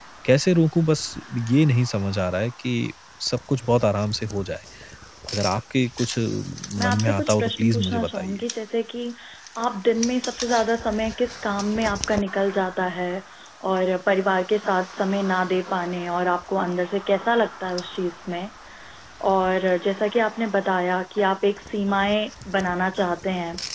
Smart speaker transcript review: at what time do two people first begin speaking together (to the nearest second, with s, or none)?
7 s